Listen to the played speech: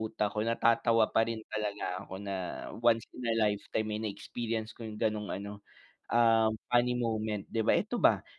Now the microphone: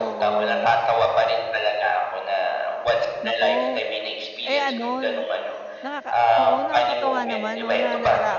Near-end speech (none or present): present